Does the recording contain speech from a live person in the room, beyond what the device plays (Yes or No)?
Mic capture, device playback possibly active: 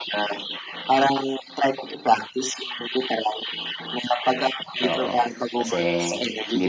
Yes